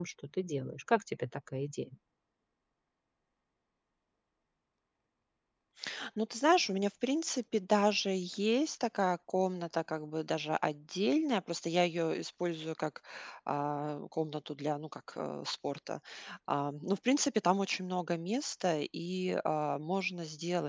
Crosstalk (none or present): none